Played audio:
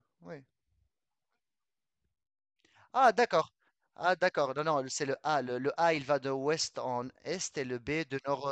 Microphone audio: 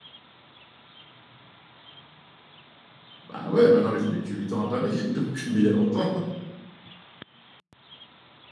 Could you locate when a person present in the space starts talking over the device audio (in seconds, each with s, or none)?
3.2 s